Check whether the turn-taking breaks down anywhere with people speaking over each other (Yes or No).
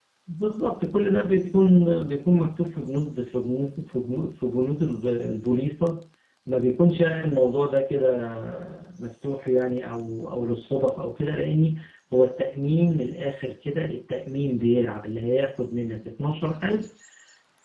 No